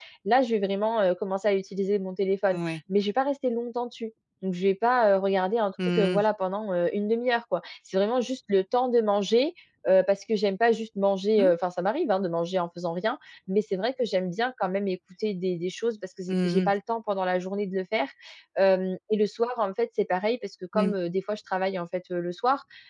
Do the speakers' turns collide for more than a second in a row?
No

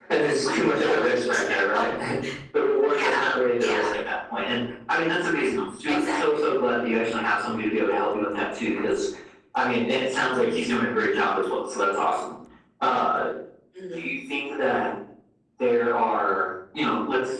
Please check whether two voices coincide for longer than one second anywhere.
Yes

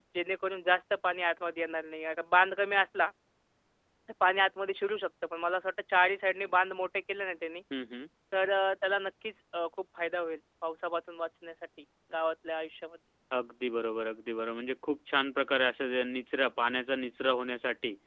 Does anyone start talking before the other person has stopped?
No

